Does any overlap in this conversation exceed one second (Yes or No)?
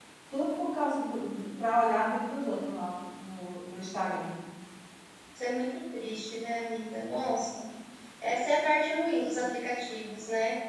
No